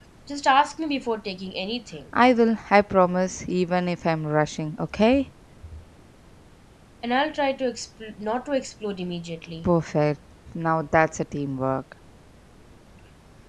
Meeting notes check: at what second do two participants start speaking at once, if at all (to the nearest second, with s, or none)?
none